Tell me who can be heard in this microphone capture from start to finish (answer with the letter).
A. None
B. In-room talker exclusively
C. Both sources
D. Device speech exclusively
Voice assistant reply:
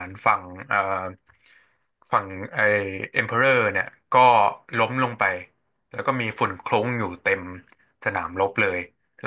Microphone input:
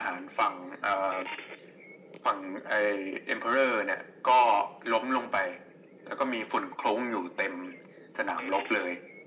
D